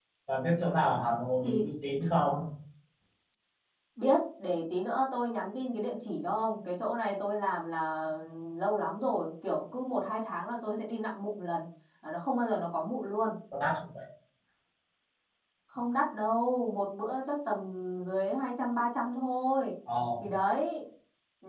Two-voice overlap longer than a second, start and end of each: none

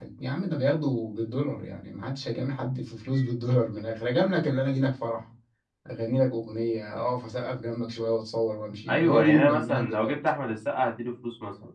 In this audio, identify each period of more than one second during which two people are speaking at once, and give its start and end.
8.9-10.1

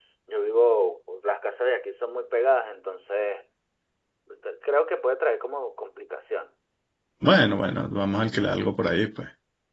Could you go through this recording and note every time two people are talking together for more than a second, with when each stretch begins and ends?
none

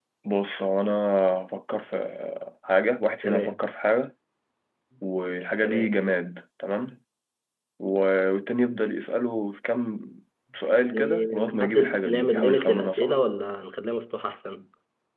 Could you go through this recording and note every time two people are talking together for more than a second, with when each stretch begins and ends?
10.9-13.2

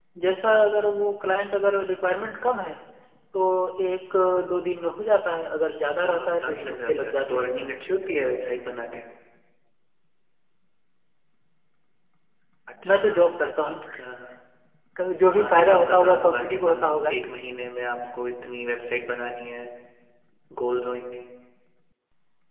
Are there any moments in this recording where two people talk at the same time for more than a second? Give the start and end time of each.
6.0-7.5, 15.3-17.2

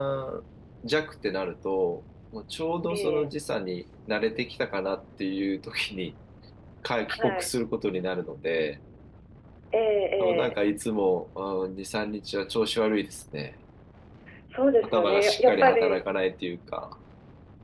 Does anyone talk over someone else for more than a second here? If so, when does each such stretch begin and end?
14.8-16.0

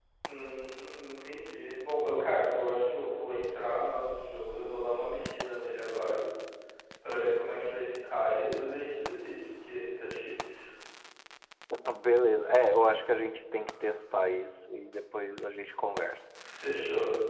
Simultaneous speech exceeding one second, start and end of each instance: none

